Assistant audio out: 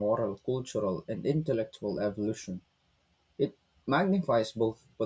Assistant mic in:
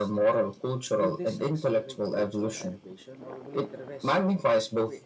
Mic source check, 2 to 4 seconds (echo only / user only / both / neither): both